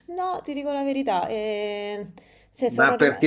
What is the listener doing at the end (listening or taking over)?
taking over